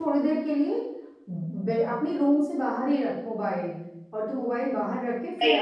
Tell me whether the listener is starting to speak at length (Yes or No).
No